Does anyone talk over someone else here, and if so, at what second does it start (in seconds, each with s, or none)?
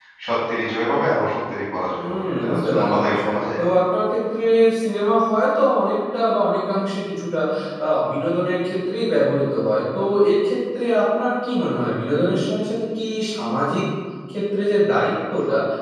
2.0 s